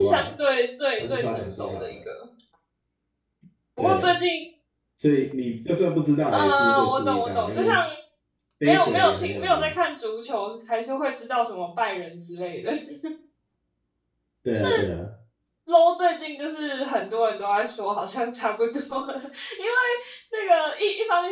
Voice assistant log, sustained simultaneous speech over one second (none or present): present